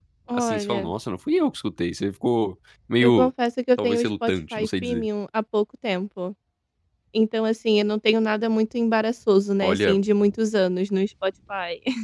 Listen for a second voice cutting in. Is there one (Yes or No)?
Yes